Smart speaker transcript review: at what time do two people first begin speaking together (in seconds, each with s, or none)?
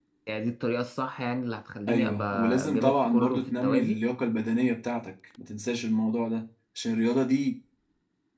1.9 s